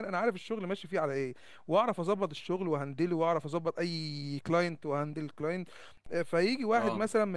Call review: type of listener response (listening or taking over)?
listening